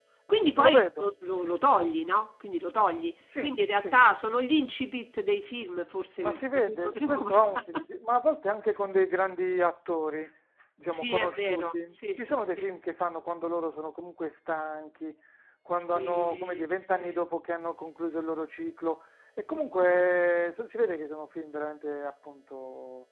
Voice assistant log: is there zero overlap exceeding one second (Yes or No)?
No